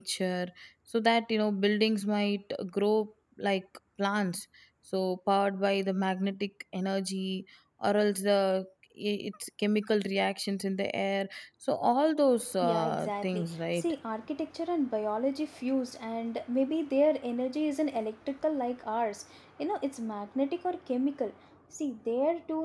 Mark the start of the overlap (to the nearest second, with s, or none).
13 s